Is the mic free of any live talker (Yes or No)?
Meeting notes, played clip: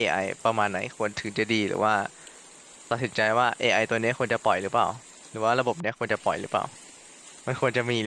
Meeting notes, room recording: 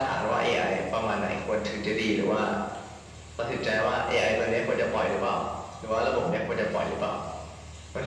Yes